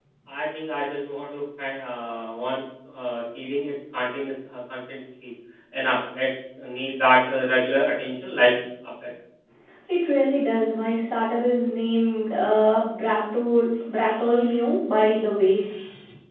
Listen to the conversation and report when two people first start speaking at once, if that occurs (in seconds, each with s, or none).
none